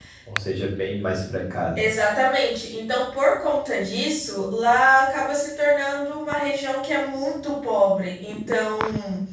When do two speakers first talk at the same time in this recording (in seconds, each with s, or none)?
none